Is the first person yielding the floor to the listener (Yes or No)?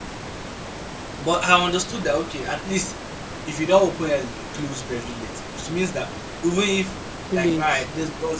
No